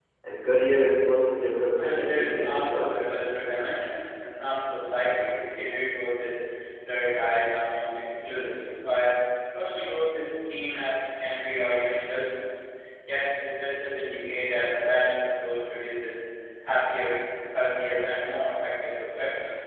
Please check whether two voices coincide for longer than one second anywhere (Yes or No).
Yes